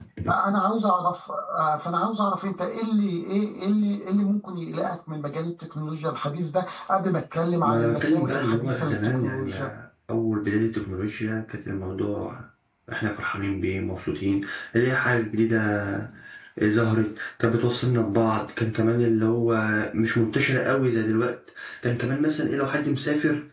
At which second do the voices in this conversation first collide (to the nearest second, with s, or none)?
8 s